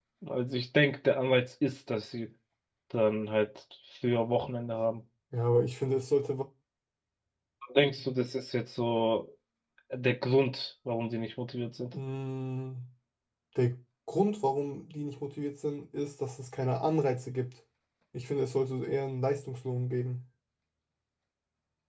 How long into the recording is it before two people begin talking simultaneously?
none

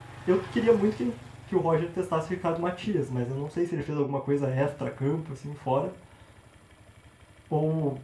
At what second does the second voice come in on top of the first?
none

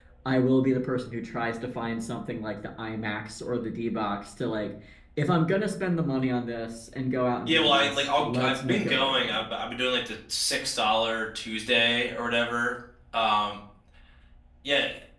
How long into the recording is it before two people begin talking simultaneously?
7.5 s

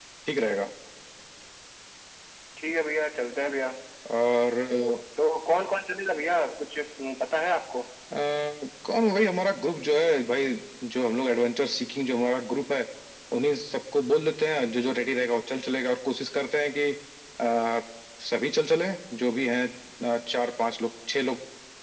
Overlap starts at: none

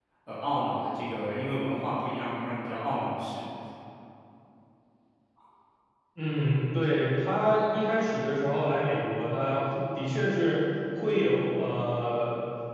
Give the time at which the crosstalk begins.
none

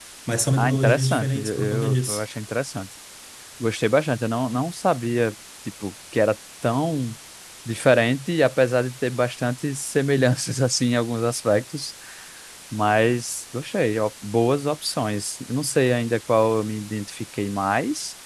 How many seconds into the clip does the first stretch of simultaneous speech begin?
0.6 s

